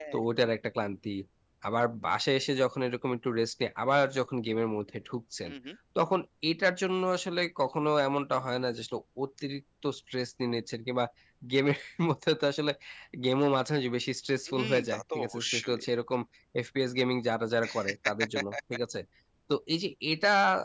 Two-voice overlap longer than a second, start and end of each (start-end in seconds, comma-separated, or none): 14.5-15.8